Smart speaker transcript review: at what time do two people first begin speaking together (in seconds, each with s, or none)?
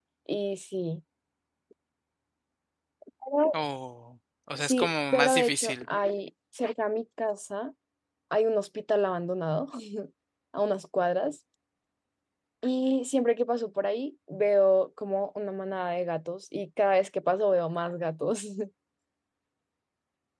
4.6 s